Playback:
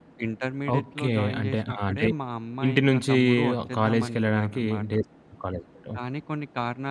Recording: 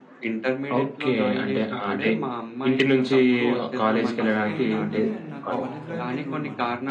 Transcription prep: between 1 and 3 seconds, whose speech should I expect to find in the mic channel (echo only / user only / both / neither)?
echo only